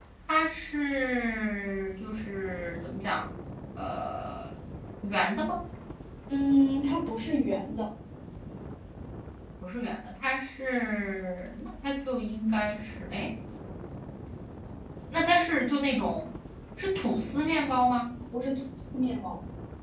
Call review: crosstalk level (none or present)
none